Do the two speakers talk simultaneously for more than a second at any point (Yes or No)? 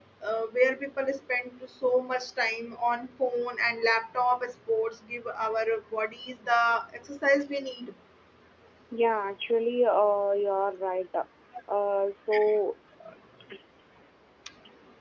No